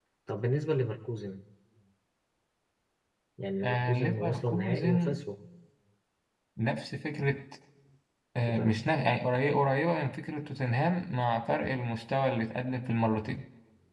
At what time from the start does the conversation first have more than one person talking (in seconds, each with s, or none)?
3.6 s